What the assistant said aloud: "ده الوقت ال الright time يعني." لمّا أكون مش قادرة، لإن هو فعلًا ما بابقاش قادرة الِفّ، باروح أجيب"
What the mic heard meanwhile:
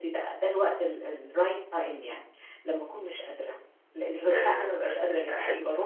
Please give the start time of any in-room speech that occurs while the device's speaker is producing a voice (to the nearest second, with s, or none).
4 s